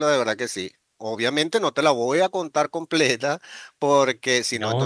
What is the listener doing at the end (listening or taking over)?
taking over